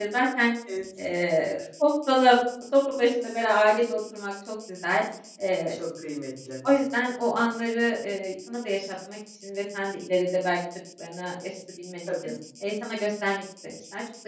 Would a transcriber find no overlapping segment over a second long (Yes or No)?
Yes